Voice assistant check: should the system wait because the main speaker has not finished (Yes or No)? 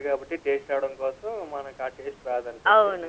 No